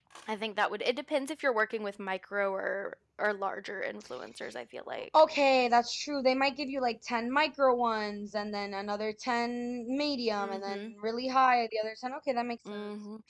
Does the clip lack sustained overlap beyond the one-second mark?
Yes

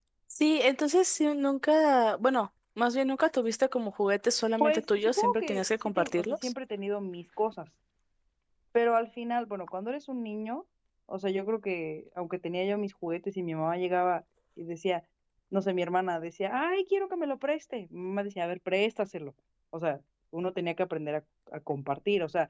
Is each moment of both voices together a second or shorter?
No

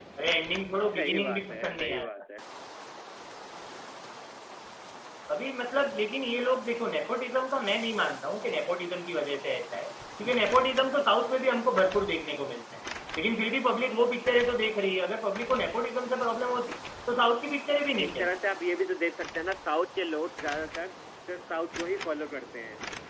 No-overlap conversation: No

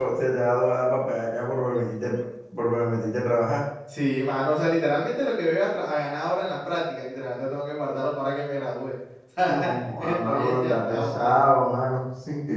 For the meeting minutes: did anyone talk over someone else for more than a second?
Yes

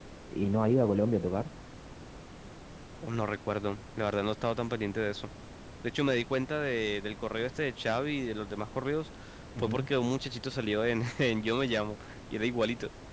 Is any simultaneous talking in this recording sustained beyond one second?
No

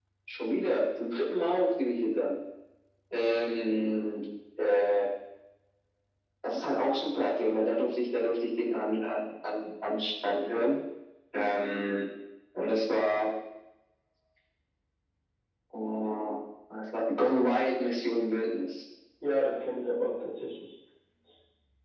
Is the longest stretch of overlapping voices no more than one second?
Yes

